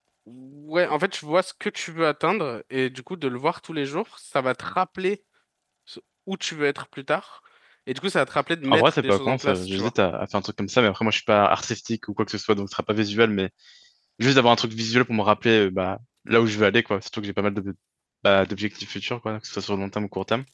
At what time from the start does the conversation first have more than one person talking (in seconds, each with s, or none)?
8.7 s